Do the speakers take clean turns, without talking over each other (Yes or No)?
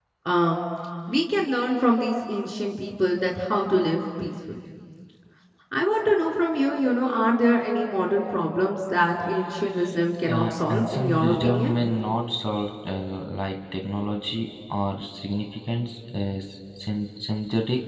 No